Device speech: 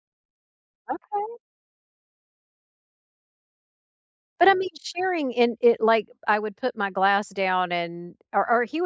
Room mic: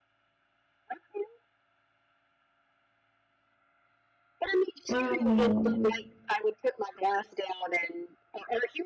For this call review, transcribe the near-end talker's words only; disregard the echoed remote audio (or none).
Oh.